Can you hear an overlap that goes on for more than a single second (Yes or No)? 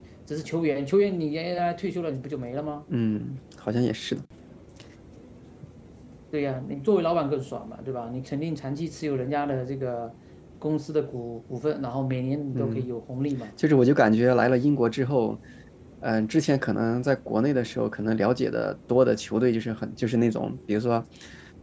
No